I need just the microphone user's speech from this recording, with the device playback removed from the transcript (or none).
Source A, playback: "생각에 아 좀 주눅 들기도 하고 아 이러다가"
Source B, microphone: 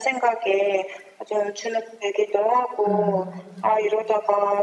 아.